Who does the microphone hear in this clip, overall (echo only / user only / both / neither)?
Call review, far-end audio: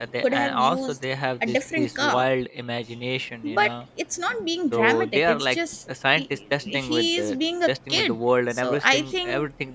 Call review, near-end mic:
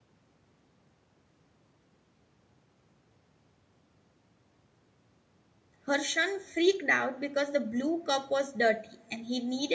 user only